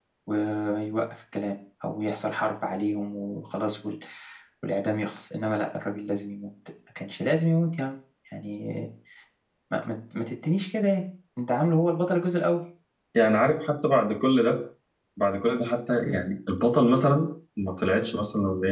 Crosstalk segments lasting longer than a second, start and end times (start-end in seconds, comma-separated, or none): none